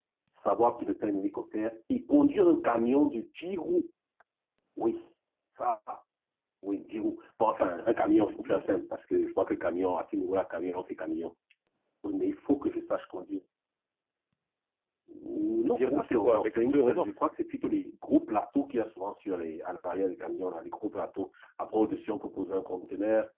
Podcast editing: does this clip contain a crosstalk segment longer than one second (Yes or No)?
Yes